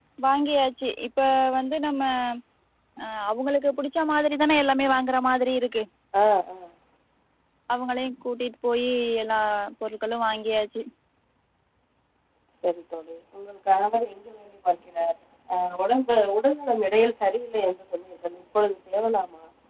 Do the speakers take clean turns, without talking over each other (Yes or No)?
Yes